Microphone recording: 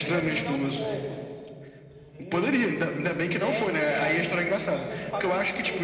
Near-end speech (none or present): present